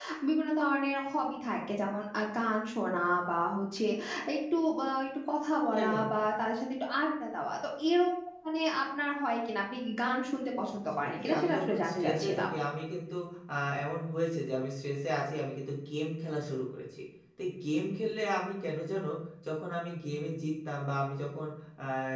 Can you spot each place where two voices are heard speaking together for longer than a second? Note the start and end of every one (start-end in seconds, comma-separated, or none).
11.0-12.4